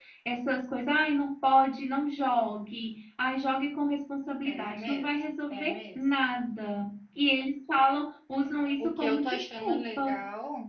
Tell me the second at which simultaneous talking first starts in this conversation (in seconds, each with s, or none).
4.4 s